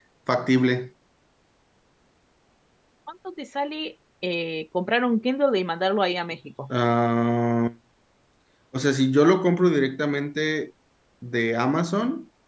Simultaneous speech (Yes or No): No